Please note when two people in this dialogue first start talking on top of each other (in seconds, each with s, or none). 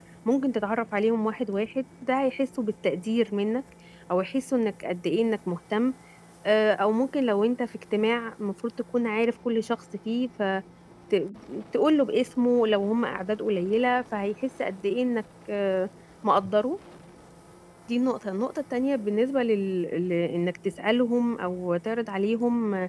none